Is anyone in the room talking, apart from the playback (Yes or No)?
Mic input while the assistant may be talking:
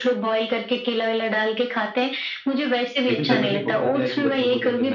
Yes